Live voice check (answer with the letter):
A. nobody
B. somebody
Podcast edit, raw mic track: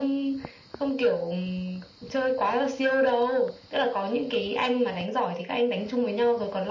A